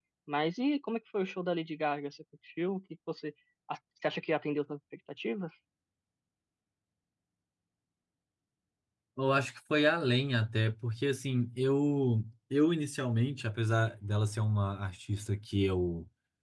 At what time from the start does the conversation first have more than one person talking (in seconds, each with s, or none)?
none